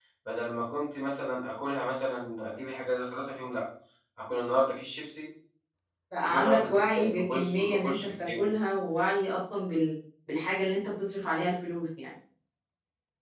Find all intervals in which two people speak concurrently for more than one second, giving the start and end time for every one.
6.3-8.5

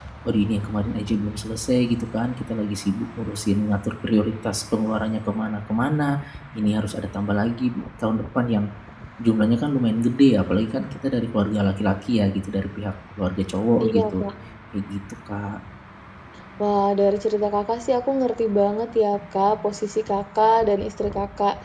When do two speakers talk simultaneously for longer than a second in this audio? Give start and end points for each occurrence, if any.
none

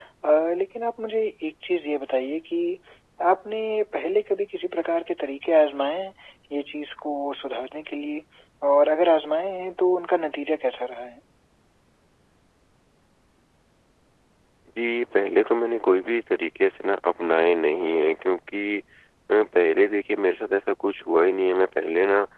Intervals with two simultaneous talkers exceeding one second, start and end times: none

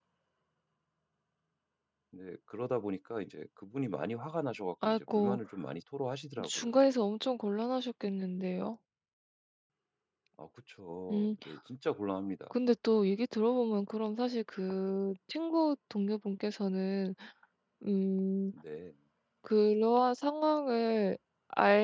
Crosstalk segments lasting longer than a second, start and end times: none

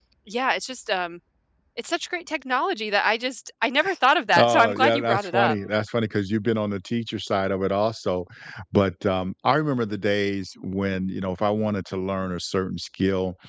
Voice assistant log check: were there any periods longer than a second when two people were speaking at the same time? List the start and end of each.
4.3-5.6

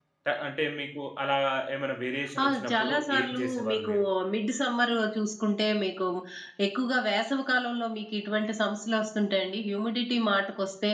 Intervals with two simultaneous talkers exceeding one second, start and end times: 2.4-3.9

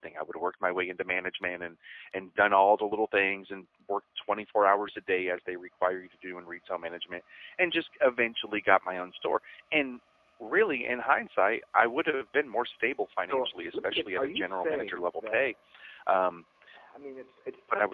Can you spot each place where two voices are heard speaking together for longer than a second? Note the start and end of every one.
13.3-15.5

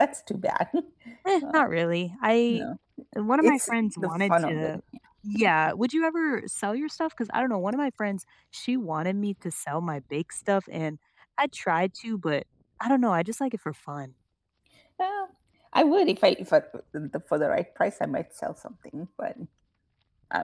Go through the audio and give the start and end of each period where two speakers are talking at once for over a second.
3.3-4.7

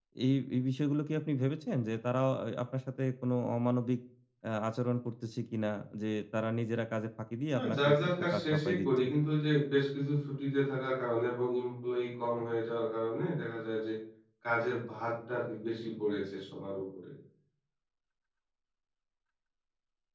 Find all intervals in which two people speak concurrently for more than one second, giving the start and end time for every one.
7.5-9.1

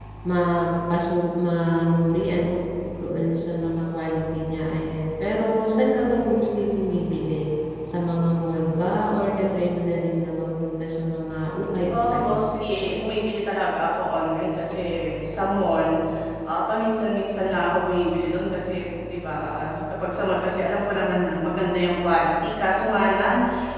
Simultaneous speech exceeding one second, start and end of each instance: none

